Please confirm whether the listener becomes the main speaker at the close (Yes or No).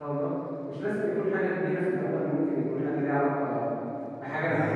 No